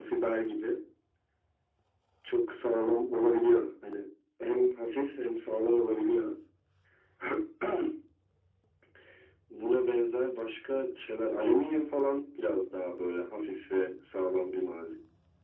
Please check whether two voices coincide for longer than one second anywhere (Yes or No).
No